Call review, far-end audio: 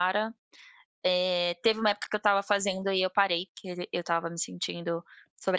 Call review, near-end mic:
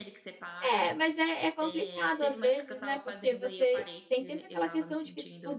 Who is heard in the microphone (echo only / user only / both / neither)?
both